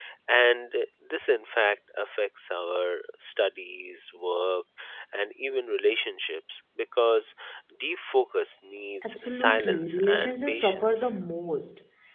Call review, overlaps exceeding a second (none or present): present